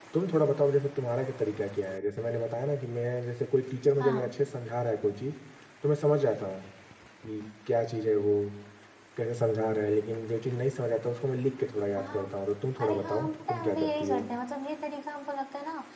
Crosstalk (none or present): present